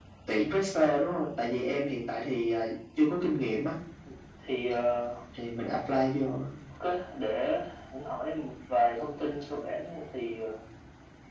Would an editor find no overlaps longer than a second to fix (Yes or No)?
Yes